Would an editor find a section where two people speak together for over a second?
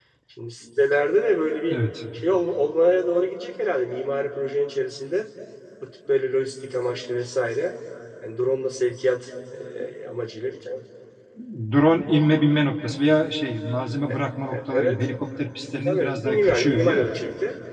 Yes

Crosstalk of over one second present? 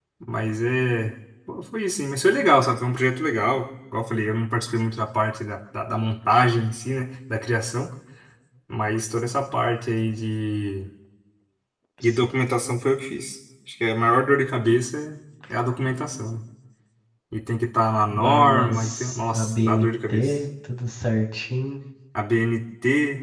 Yes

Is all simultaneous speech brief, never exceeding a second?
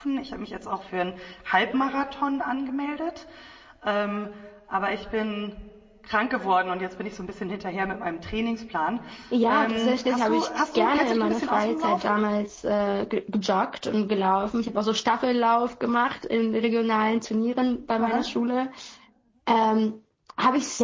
No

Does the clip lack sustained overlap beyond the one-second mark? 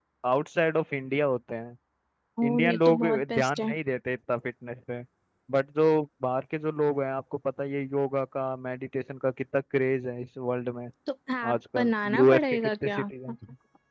No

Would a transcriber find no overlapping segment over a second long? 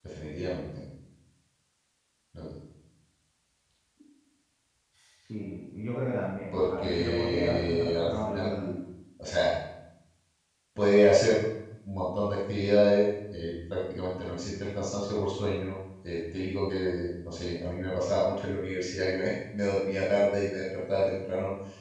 No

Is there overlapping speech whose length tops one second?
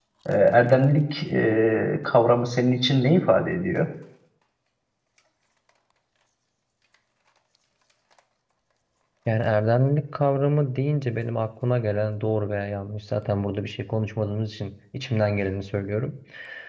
No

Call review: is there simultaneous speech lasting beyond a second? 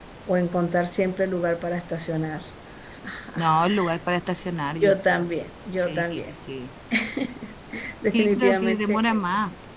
Yes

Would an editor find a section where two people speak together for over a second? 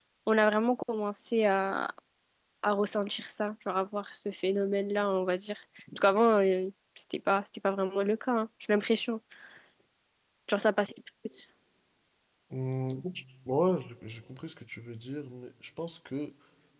No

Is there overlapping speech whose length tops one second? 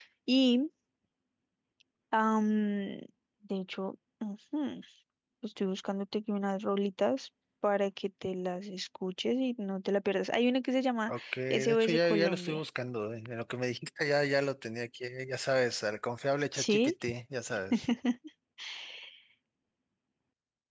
Yes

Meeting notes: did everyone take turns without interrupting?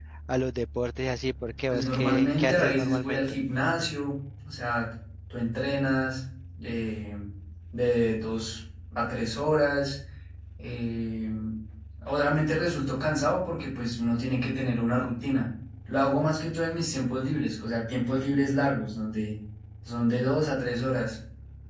No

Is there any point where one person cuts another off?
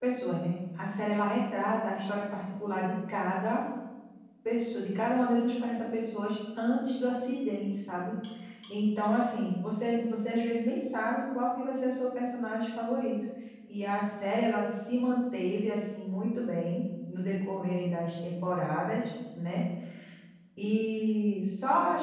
No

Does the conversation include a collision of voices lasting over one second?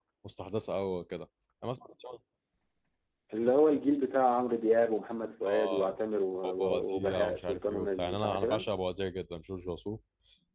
Yes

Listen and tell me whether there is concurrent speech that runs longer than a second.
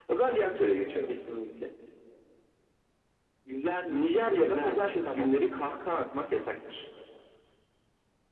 Yes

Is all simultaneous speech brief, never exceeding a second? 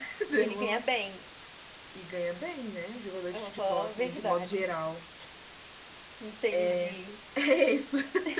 No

